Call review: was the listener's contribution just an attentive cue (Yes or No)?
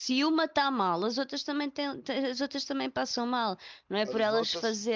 No